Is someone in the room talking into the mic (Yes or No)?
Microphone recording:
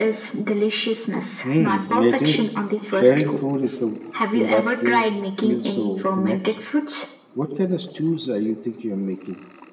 Yes